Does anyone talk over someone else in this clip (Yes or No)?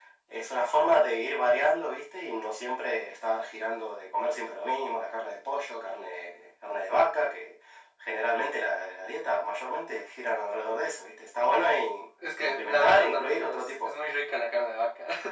Yes